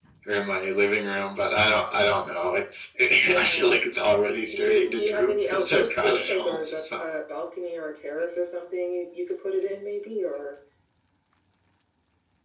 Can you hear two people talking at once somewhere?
Yes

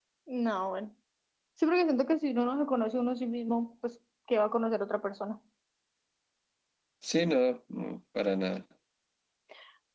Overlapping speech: No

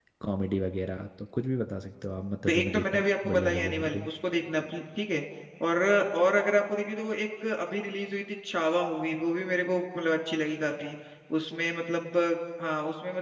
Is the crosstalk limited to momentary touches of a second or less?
No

